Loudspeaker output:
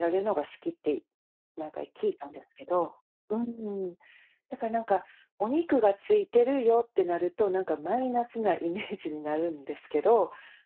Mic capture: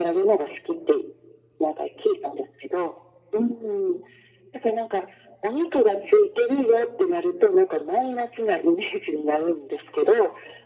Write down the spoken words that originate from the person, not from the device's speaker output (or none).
none